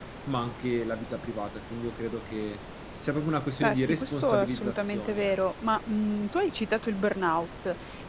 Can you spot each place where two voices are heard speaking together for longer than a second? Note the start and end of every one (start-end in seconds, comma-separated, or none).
3.6-5.3